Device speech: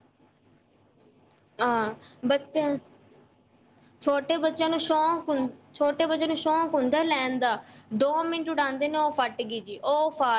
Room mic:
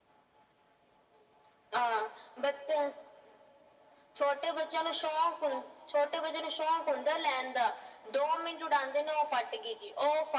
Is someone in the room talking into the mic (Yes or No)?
No